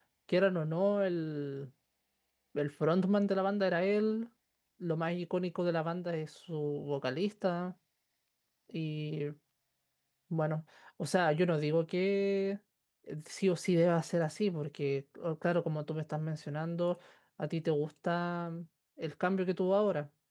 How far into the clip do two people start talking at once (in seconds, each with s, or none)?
none